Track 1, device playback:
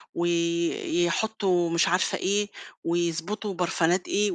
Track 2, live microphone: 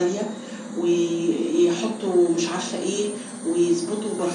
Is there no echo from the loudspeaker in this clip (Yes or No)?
No